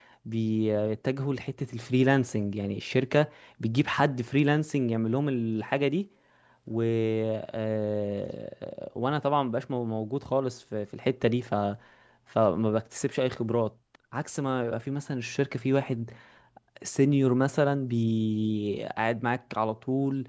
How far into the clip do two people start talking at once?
none

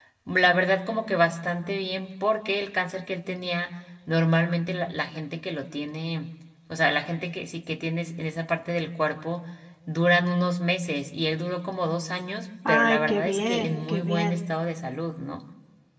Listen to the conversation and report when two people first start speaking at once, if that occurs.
12.7 s

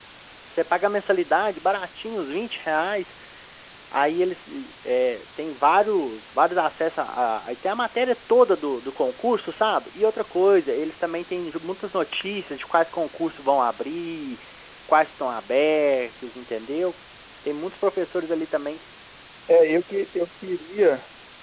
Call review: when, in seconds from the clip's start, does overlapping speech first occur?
none

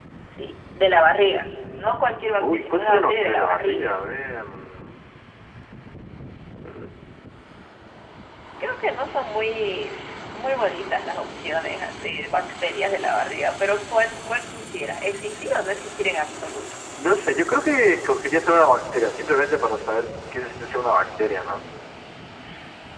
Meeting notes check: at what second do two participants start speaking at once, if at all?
2.4 s

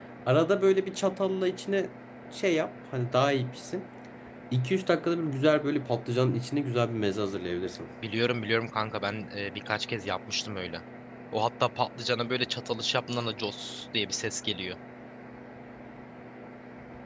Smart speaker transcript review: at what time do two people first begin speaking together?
none

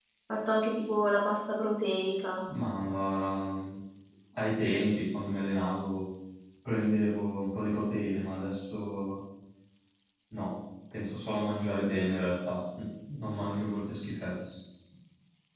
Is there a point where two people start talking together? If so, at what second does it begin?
none

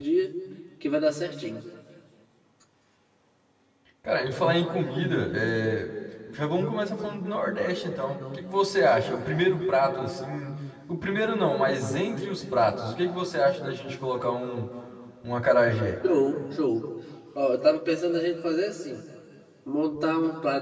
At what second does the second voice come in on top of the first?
none

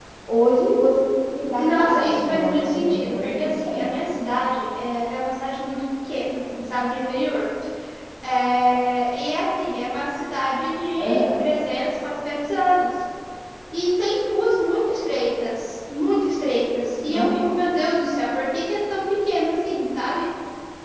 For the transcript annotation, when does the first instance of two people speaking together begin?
1.6 s

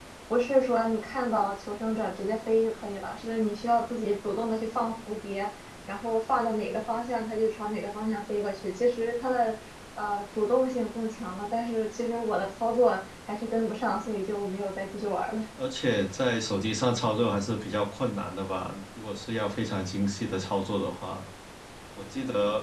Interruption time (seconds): none

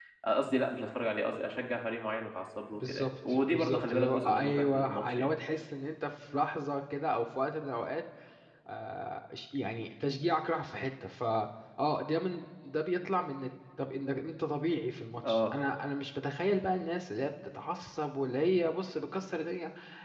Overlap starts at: 2.7 s

